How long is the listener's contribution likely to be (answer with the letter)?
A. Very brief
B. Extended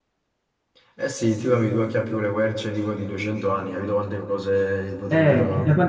B